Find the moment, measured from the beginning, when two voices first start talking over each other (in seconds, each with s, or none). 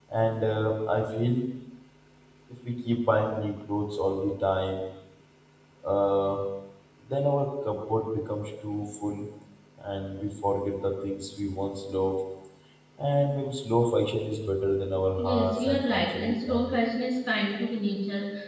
15.2 s